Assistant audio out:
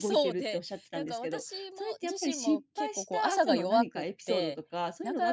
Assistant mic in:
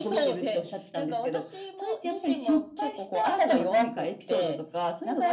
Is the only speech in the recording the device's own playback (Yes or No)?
Yes